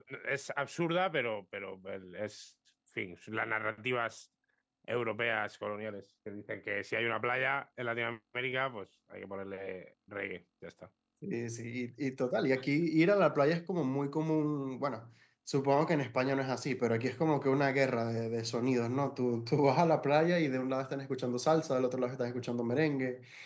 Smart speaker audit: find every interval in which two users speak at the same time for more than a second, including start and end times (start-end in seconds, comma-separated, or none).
none